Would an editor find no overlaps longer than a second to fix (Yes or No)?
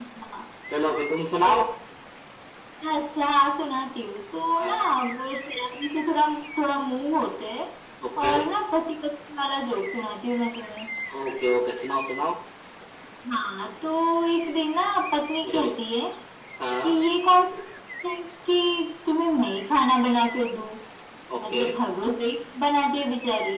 Yes